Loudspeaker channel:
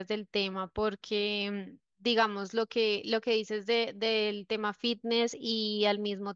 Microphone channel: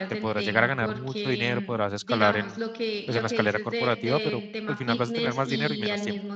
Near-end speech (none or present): present